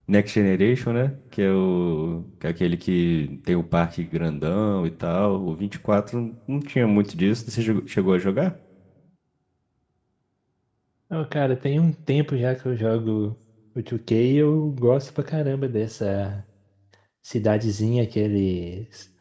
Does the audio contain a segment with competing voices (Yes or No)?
No